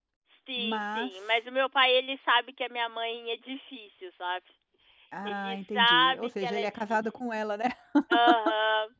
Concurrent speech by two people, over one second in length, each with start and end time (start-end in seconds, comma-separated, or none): 5.2-7.0